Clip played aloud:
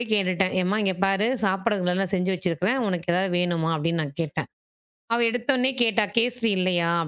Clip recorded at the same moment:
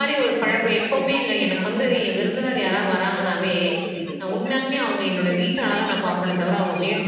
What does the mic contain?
both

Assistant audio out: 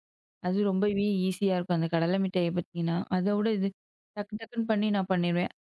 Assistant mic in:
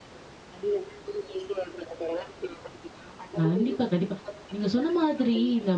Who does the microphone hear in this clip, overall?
both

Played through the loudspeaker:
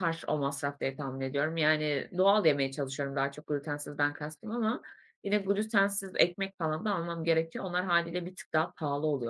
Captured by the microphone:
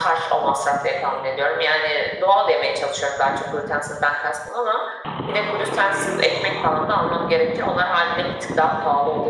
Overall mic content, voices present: echo only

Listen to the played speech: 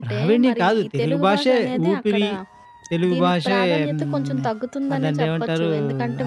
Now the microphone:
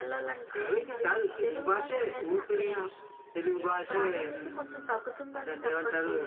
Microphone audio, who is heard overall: echo only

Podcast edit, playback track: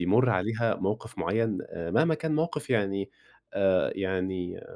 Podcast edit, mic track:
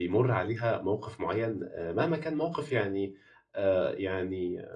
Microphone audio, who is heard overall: echo only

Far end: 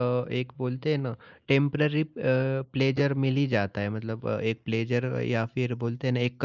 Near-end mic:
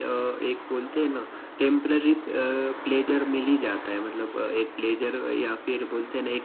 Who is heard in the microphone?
echo only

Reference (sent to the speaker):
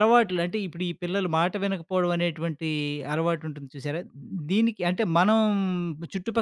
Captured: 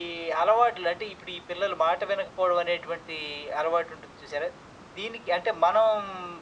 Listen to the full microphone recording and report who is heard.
echo only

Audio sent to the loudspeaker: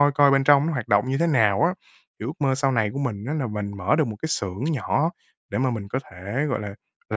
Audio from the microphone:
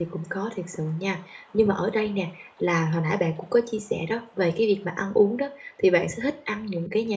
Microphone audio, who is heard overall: user only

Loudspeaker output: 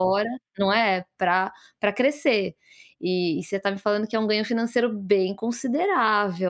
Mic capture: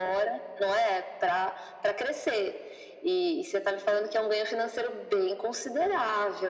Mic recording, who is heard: echo only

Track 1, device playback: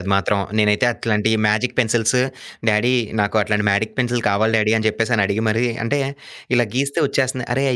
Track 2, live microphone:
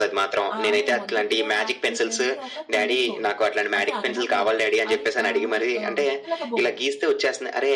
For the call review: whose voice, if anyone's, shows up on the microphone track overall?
both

